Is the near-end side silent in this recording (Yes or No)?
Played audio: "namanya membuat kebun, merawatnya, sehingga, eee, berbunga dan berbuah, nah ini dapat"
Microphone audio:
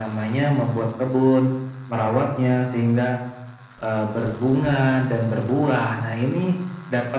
Yes